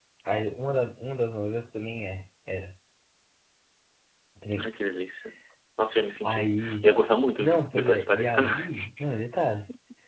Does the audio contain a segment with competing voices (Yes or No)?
Yes